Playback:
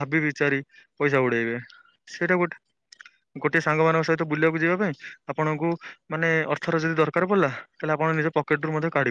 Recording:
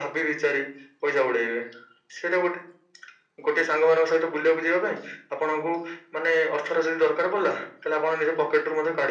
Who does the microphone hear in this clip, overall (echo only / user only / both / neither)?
echo only